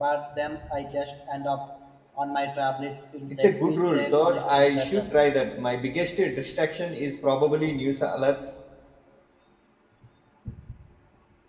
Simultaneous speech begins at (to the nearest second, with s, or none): 3 s